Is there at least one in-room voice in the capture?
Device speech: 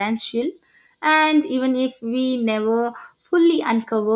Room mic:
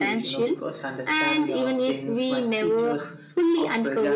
Yes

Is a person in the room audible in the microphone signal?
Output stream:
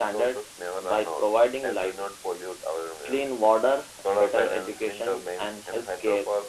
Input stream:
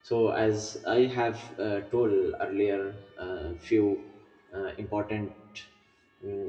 Yes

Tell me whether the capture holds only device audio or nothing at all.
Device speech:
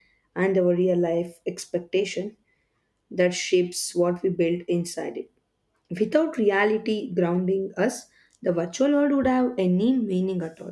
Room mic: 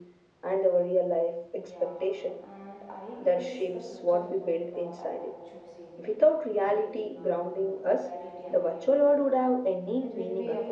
No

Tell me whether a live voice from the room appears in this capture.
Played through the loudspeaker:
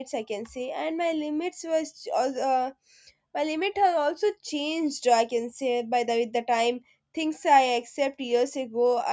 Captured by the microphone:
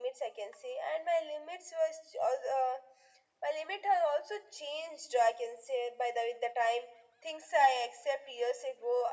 No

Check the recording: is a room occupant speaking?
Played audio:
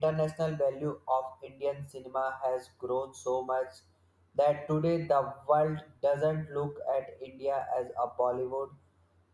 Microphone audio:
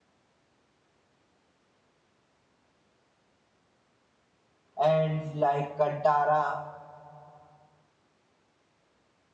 Yes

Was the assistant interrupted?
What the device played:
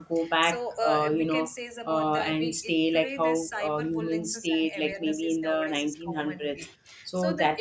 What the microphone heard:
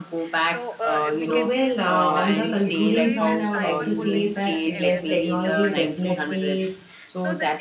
Yes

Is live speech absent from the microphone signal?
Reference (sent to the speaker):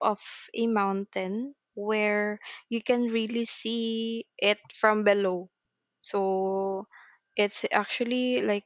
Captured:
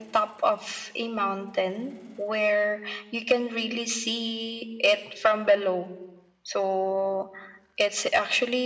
Yes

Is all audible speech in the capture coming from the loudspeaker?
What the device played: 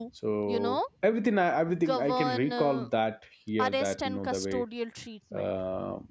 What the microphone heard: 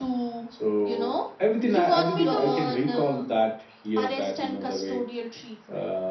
No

